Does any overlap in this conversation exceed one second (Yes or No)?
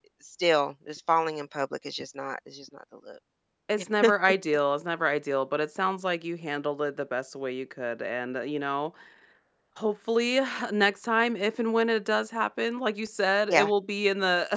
No